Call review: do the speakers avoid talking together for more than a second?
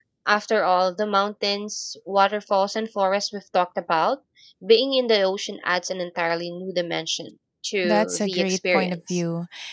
No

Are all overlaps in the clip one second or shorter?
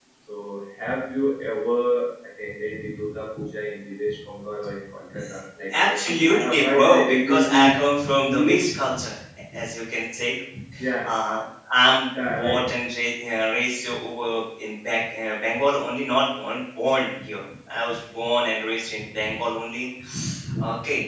No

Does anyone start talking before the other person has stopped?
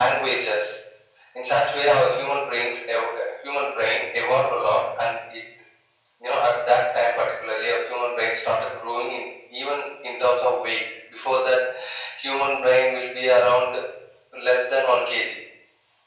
No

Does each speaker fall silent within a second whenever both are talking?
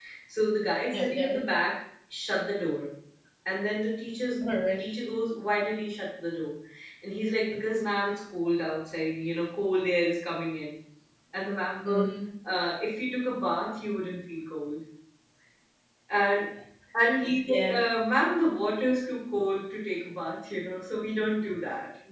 Yes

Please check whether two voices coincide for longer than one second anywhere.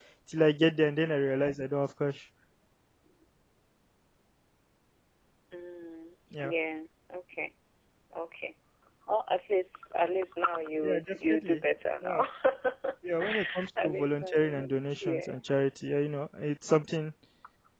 Yes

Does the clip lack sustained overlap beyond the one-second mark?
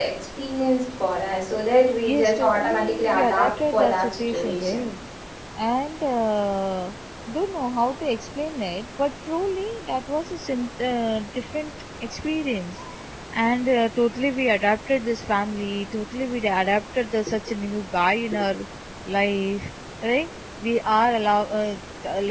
No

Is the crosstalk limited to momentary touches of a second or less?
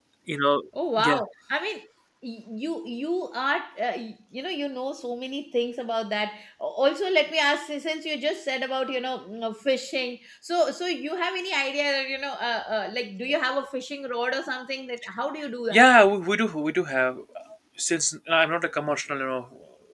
Yes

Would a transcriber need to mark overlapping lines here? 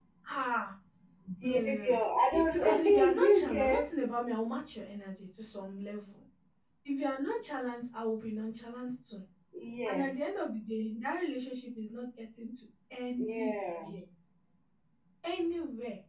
Yes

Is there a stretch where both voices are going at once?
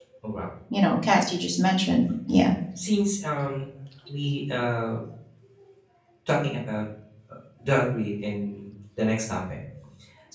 No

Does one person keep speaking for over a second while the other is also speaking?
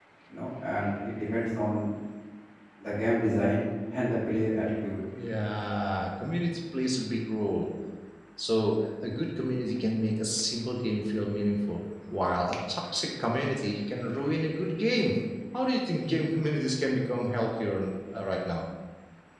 No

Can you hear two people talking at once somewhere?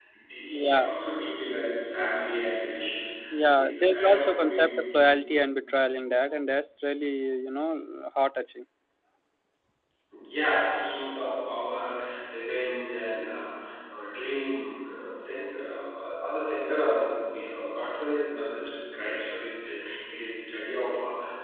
Yes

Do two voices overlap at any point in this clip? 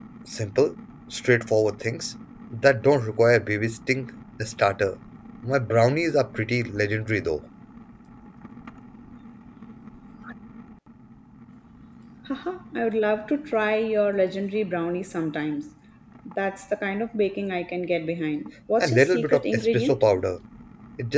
Yes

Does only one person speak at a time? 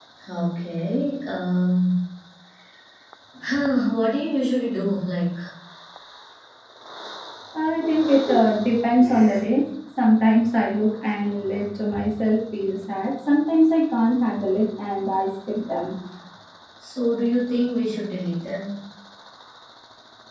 Yes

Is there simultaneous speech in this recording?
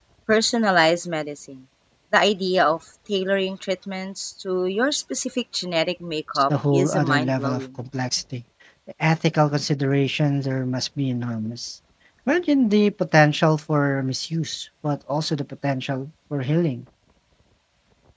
Yes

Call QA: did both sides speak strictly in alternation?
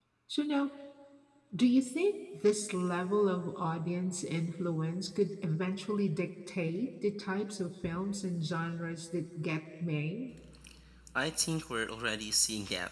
Yes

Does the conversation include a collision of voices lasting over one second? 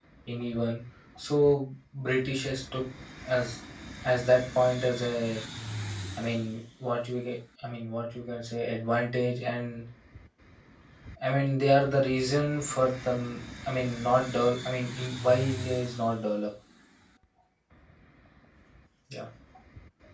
No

